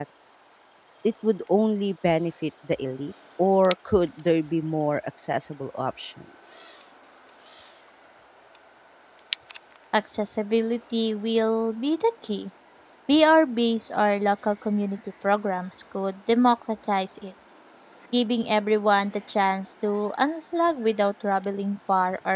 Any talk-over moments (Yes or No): No